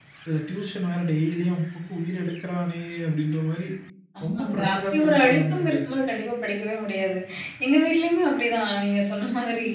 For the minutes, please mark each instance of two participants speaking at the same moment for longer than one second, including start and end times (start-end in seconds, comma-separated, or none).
4.3-6.0